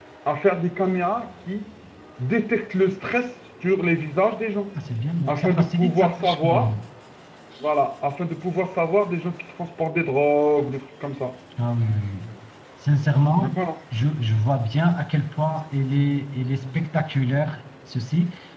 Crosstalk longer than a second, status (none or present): present